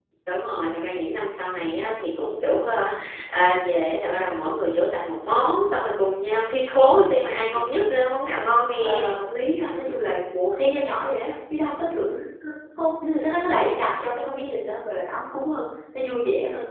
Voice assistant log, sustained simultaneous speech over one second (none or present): none